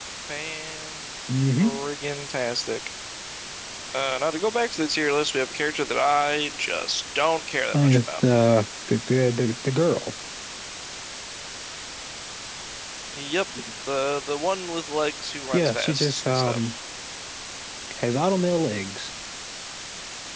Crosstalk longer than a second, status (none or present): present